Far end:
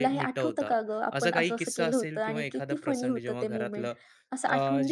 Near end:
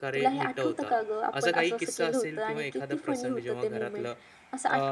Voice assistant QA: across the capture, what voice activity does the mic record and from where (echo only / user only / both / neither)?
echo only